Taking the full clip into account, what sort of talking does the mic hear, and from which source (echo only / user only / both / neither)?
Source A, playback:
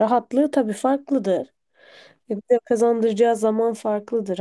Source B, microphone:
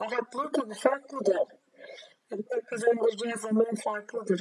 echo only